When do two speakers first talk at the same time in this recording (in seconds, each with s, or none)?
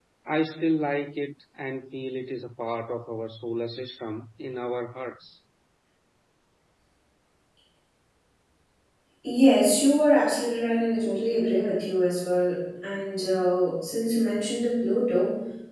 none